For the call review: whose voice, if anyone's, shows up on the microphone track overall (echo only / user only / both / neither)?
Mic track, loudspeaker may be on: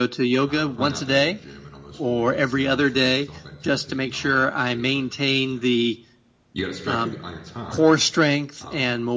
both